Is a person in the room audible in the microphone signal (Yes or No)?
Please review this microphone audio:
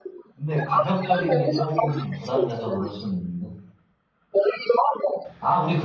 Yes